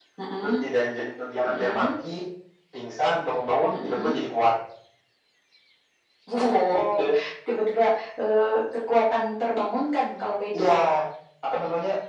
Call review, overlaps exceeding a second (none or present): none